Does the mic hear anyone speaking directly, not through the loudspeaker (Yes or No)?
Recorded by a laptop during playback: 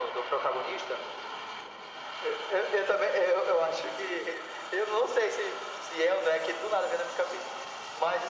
No